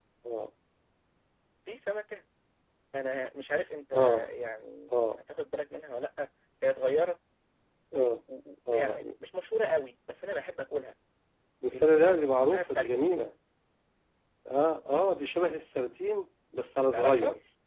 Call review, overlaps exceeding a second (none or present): present